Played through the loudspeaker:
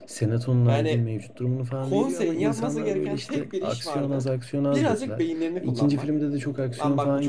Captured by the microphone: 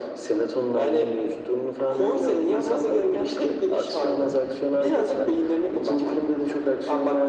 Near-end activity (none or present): none